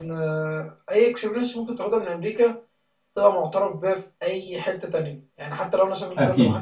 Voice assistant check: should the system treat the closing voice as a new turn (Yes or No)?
No